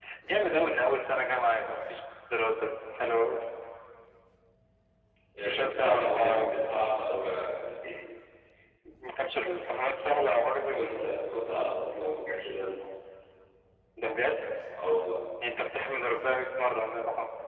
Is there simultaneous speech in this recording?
Yes, from 5.5 s

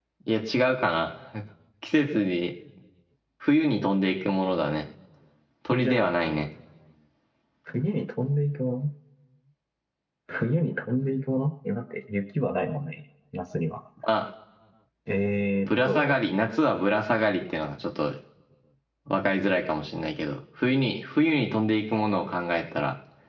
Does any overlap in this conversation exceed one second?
No

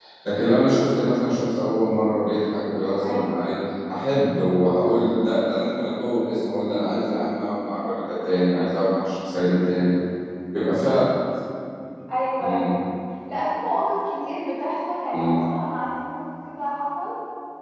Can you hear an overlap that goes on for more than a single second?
No

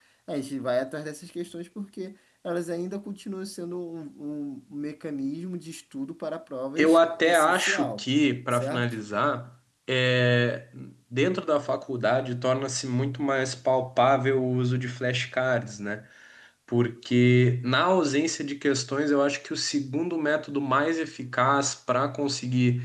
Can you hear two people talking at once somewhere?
Yes, from 6.8 s

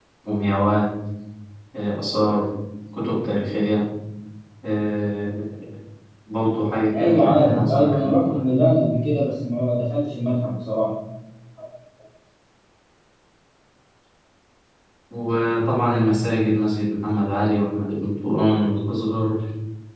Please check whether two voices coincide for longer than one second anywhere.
Yes, from 7.0 s

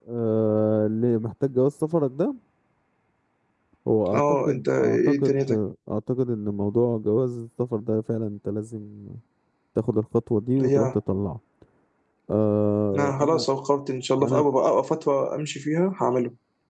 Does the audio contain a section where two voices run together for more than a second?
Yes, from 4.1 s

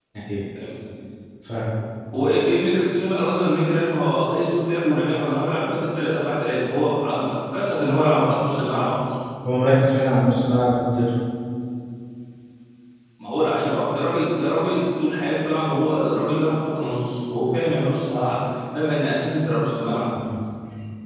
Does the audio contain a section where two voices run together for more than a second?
No

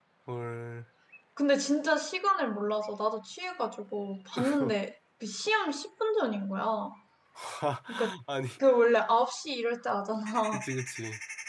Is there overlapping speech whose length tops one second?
No

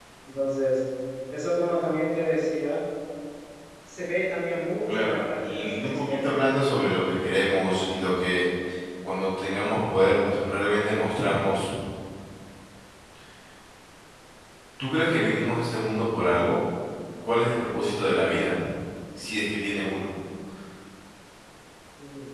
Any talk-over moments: Yes, from 4.9 s

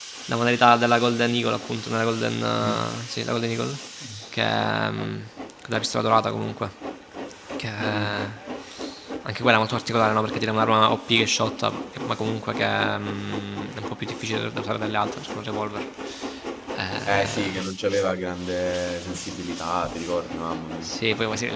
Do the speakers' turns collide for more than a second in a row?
No

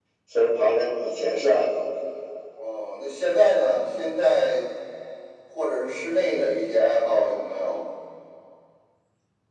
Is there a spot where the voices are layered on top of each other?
No

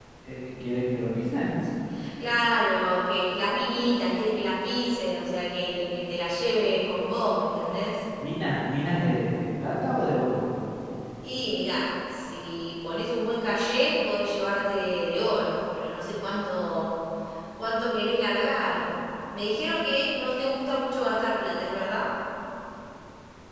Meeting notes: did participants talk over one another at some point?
No

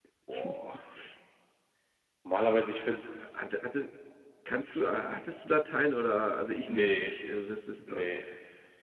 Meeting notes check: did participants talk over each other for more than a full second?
No

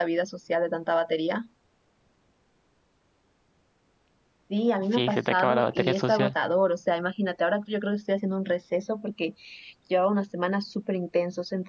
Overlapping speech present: Yes, from 4.8 s

